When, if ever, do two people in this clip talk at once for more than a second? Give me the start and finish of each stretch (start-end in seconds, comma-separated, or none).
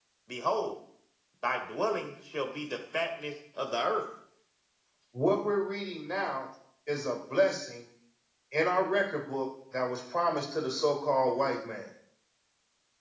none